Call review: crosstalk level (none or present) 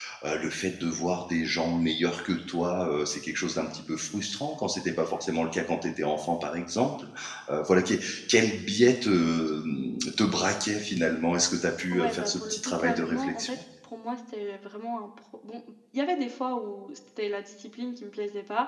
present